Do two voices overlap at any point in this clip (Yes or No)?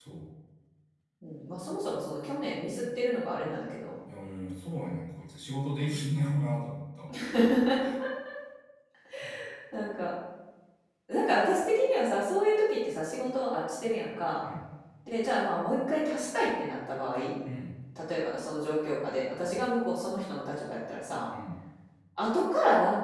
No